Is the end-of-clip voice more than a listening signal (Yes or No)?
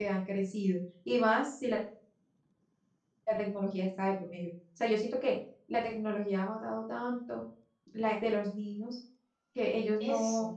No